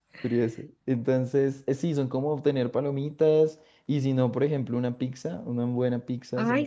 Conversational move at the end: taking over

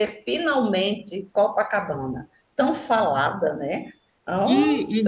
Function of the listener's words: taking over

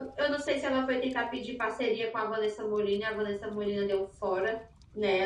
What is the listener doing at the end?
listening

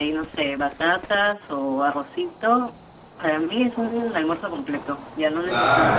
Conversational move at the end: taking over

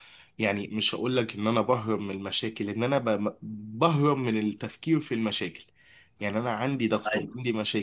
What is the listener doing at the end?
listening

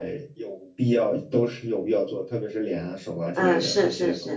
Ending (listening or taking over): taking over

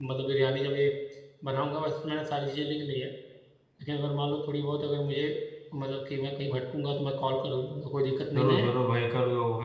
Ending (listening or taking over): taking over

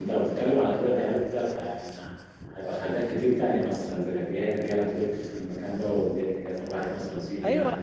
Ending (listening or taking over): taking over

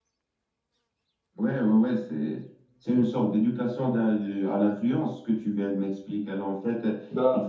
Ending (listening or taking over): listening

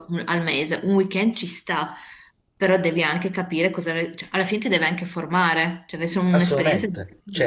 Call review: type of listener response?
taking over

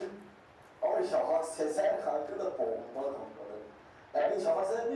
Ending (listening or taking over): listening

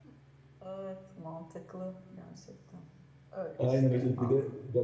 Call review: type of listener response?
taking over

